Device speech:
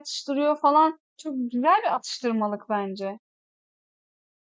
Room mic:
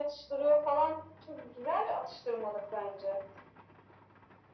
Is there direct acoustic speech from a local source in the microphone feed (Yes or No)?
No